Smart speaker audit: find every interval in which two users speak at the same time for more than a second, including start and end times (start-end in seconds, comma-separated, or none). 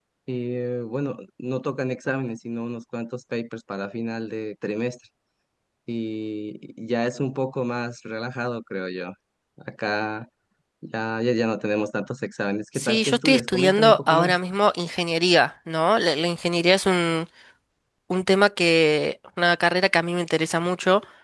12.8-14.4